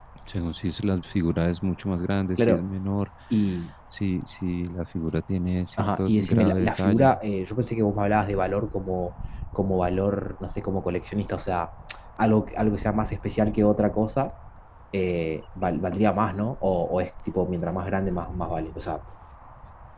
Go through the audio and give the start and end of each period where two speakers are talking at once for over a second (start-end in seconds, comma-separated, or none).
5.8-7.1